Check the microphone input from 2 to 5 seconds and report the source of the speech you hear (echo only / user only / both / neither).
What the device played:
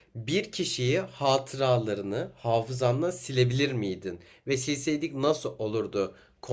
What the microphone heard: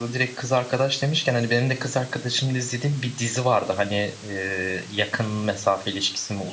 user only